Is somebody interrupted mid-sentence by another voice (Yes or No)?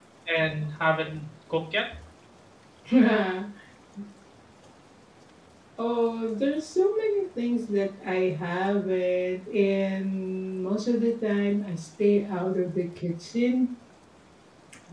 No